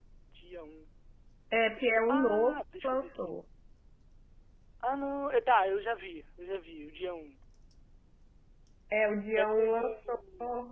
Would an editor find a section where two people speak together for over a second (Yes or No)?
Yes